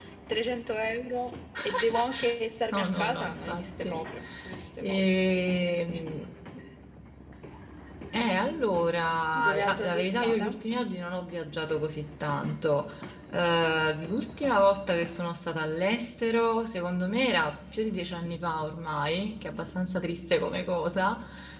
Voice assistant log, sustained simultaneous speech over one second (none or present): present